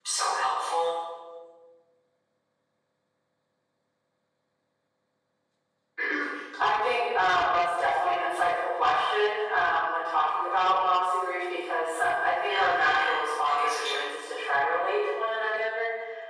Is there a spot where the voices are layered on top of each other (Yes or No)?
Yes